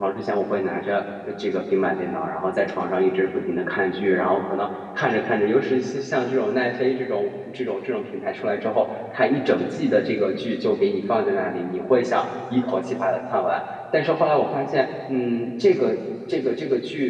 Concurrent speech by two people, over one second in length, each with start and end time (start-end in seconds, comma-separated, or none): none